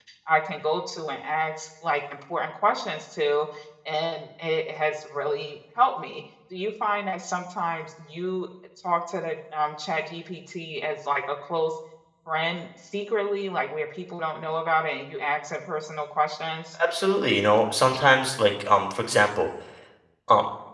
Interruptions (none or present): none